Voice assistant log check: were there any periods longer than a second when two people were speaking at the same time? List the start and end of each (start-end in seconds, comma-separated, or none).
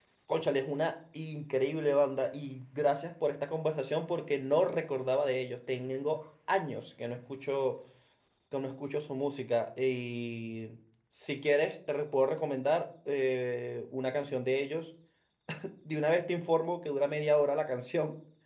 none